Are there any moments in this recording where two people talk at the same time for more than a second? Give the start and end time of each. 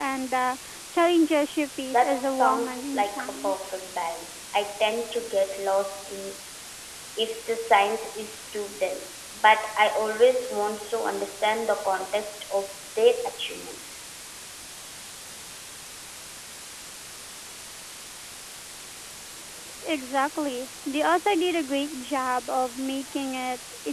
1.9-3.5

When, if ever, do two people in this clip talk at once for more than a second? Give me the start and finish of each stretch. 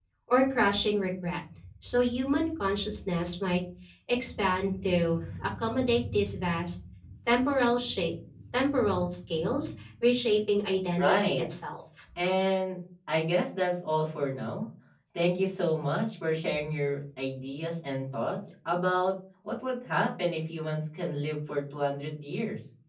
none

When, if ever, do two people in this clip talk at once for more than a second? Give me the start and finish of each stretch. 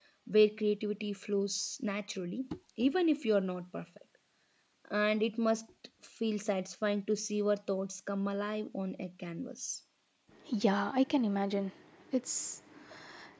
none

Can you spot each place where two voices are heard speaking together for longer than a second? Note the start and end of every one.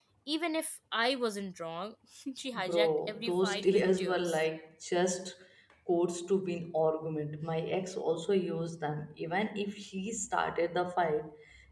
2.5-4.4

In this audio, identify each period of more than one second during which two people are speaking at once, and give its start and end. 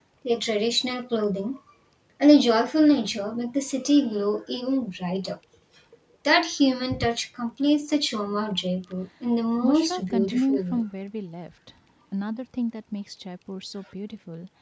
9.6-10.8

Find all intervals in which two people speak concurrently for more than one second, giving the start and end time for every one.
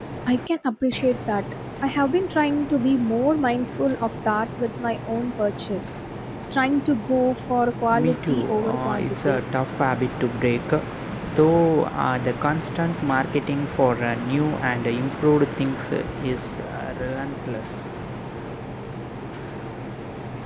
7.9-9.4

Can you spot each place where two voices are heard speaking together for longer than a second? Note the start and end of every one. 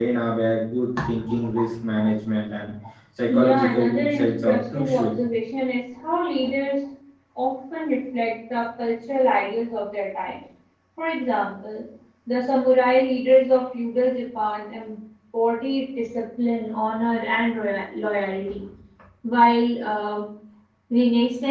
3.3-5.2

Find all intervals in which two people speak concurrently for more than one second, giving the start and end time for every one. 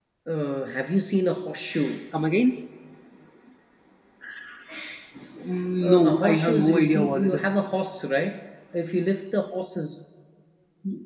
5.8-7.4

